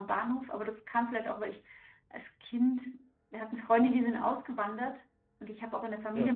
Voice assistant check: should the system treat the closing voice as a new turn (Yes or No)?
No